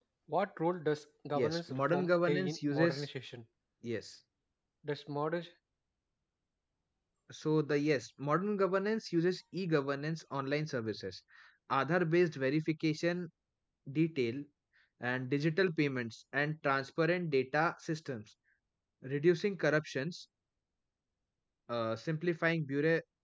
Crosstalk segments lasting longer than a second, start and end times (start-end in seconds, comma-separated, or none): 1.4-3.1